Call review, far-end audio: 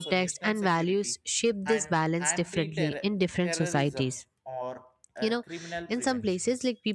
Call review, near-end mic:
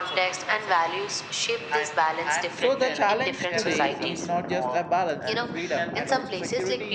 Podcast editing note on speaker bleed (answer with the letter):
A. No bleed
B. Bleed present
B